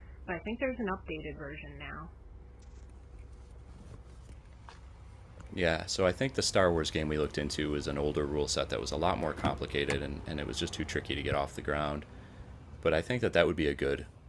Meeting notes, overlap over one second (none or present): none